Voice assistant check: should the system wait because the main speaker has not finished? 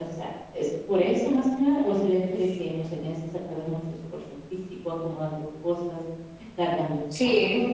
No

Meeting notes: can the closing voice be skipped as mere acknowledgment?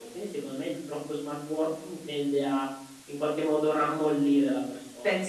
No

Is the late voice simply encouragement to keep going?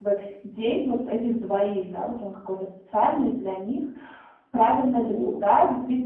Yes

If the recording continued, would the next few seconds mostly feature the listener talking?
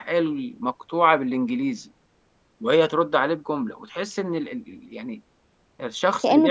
No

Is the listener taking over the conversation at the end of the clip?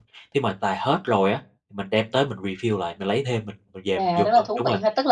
Yes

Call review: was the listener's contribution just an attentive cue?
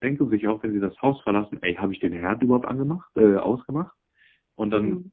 Yes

